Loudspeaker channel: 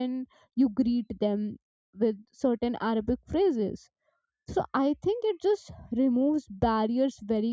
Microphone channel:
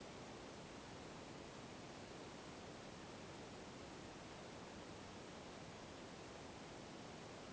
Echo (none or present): none